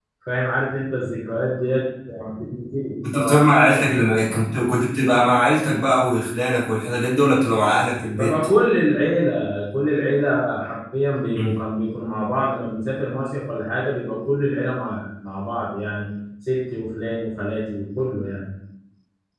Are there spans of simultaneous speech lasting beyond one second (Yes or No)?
No